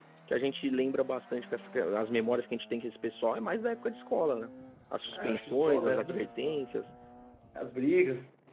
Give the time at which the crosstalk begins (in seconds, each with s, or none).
5.1 s